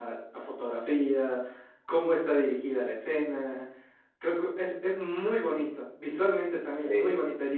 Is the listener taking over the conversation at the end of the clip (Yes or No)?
No